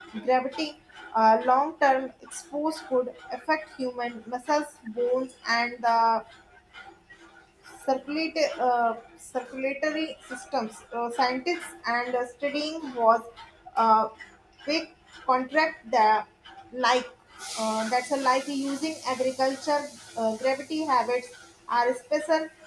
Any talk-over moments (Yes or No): No